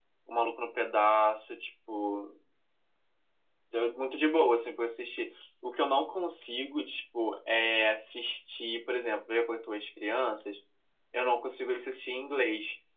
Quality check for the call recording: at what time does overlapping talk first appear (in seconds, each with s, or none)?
none